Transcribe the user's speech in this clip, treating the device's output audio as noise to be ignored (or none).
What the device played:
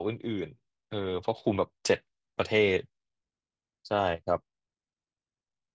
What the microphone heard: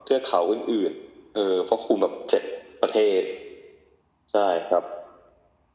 none